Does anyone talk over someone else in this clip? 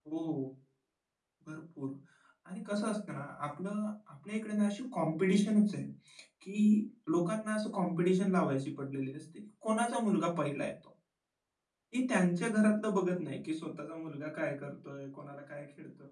No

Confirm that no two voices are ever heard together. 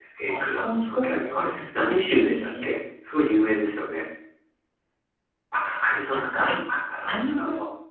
No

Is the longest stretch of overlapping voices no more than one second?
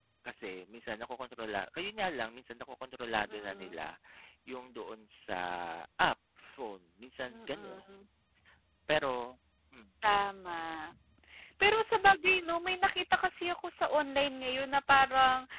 Yes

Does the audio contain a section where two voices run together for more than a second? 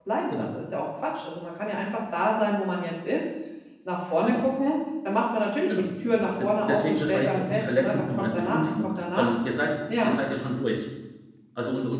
Yes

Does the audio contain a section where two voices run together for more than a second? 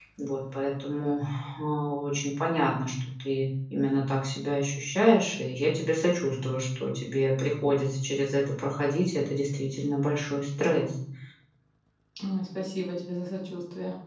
No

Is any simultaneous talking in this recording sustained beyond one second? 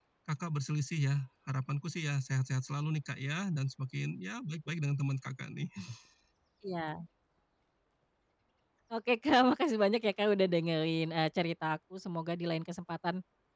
No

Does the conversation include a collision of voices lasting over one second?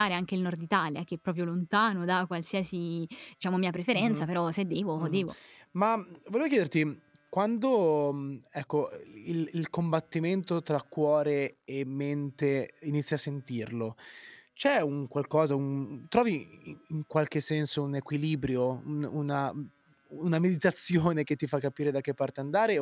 No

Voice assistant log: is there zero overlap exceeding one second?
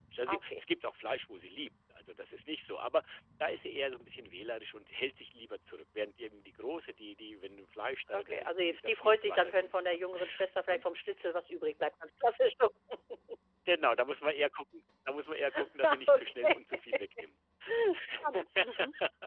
No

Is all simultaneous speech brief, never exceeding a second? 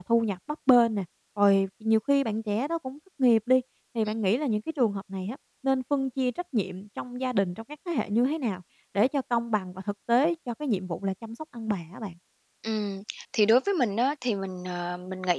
Yes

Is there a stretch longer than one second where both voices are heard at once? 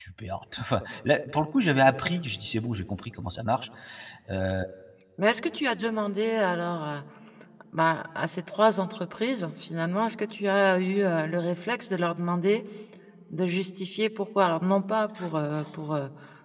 No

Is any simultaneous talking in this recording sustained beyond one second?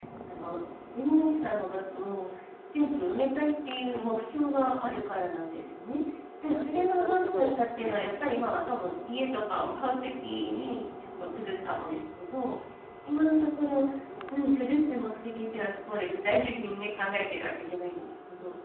Yes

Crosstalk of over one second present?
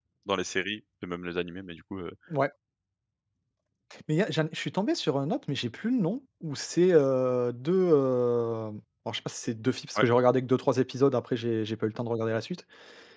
No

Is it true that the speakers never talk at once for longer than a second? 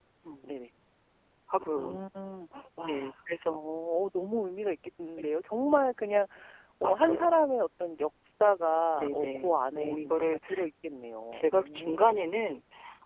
No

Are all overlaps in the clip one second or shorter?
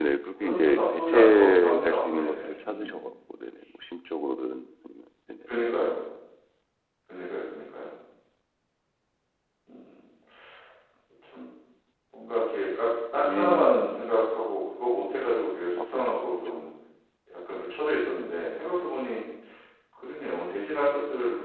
No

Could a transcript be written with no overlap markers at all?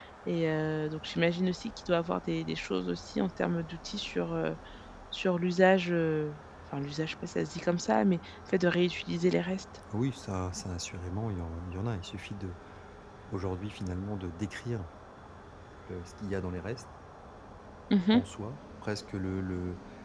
Yes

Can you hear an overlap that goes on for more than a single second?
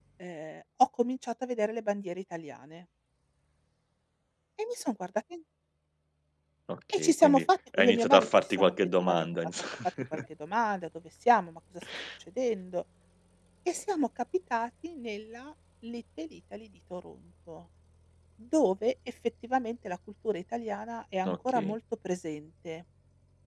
Yes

